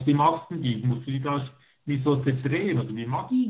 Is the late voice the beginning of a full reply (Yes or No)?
Yes